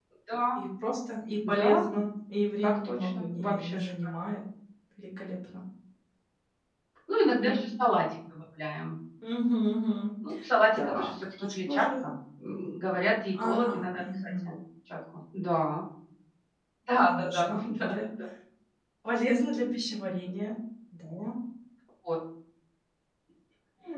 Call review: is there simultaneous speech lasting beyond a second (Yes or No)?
Yes